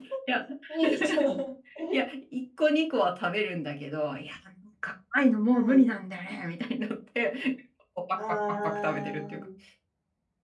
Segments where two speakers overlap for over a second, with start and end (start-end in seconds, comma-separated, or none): 8.2-9.4